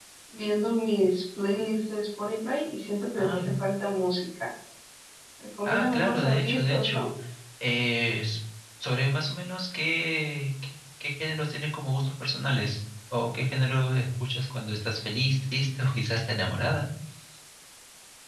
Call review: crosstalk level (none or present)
present